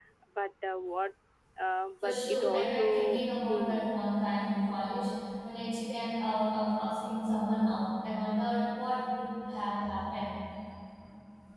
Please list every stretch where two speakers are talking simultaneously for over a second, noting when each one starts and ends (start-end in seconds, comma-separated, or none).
2.0-3.9